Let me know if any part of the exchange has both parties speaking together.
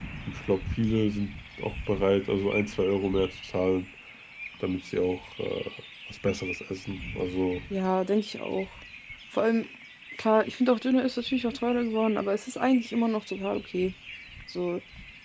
No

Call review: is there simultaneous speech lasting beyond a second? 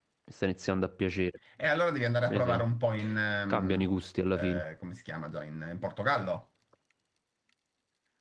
No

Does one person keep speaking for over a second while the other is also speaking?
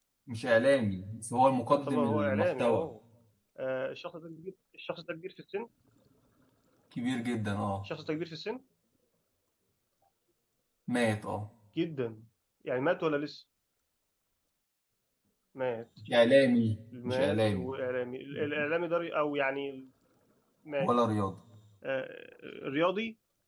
Yes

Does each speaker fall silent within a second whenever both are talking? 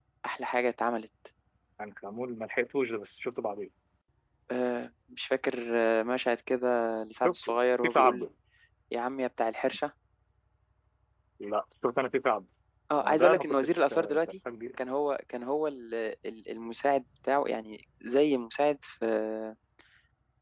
No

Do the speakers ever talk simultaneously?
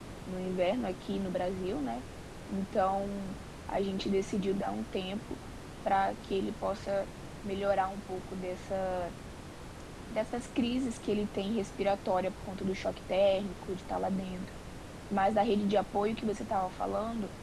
No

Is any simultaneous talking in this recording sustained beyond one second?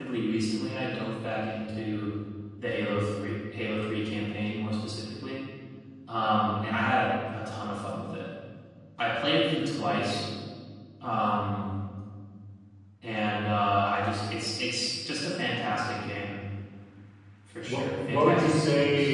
Yes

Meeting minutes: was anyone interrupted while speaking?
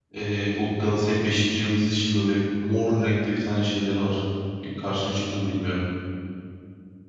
No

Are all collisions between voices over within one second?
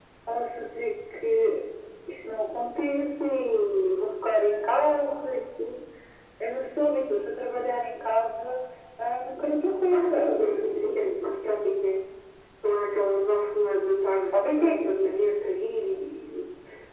Yes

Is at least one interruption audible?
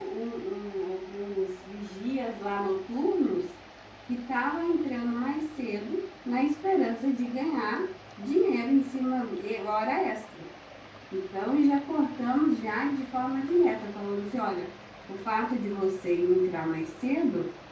No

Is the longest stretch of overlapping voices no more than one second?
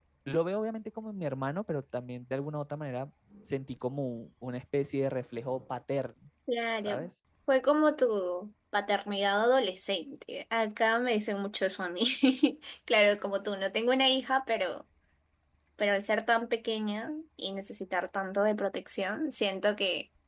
Yes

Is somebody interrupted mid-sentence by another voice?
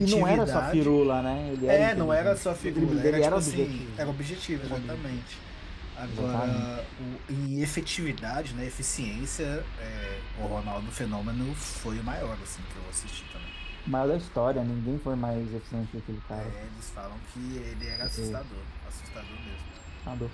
Yes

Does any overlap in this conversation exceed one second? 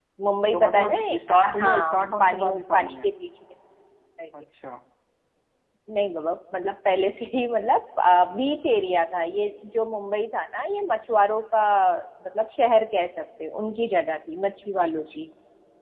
Yes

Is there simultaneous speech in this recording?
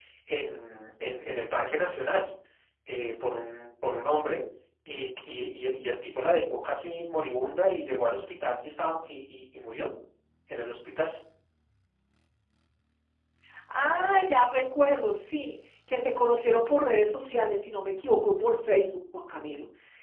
No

